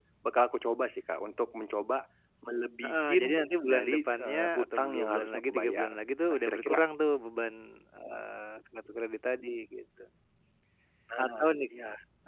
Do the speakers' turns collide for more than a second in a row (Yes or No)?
Yes